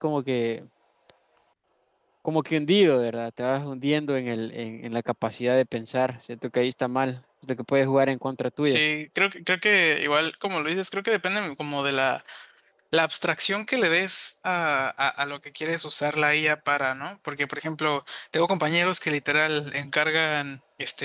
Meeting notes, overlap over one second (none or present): none